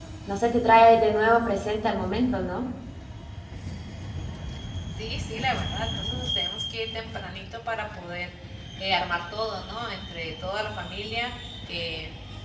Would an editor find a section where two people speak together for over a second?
No

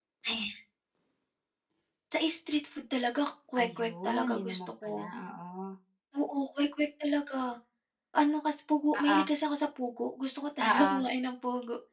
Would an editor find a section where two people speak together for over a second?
Yes, from 3.6 s

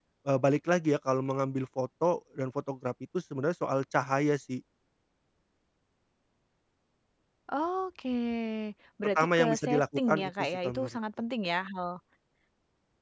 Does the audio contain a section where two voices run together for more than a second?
Yes, from 9.0 s

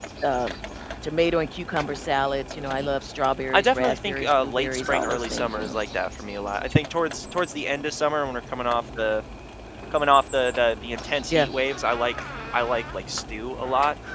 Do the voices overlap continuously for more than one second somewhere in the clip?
Yes, from 3.5 s

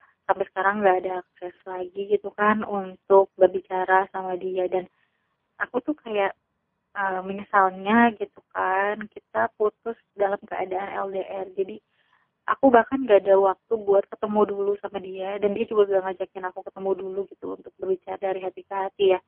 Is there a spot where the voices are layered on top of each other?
No

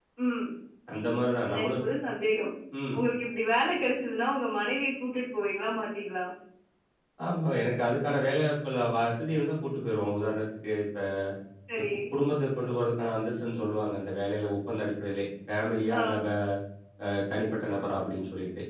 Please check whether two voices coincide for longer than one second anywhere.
No

